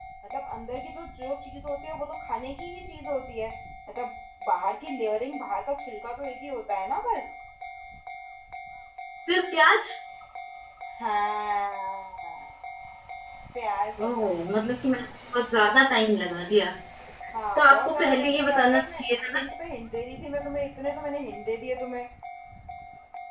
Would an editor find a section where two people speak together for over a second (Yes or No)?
Yes